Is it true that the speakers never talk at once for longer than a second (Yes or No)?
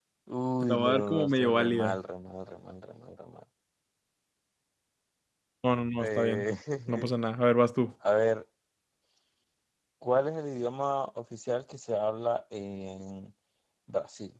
No